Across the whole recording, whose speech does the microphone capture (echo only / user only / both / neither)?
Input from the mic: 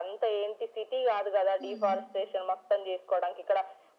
both